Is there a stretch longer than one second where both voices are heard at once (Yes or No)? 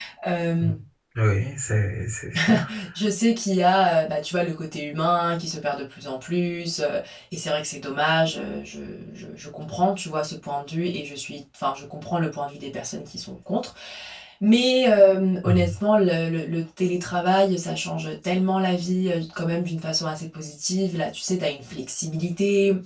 No